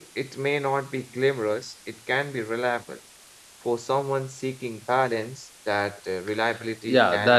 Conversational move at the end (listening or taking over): taking over